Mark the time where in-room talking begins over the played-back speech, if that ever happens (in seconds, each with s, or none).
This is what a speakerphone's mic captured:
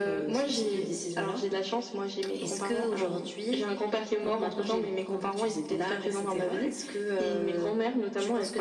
none